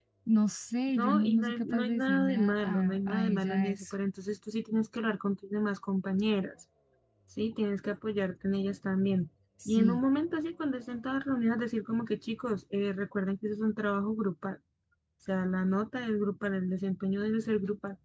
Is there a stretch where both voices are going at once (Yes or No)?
Yes